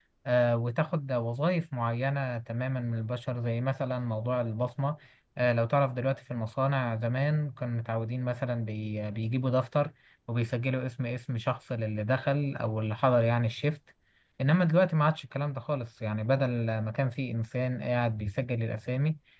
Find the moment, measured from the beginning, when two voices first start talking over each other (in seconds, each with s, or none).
none